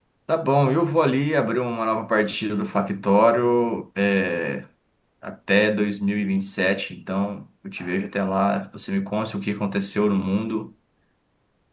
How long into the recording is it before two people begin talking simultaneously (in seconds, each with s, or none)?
none